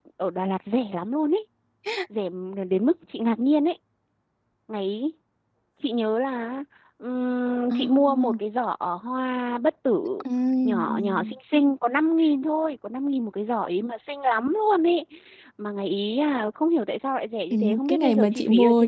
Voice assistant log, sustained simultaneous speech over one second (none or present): present